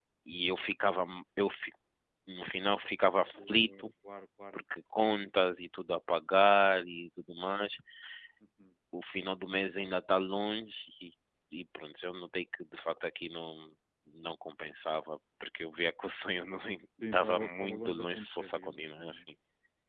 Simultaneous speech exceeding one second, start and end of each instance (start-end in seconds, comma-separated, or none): 17.1-19.2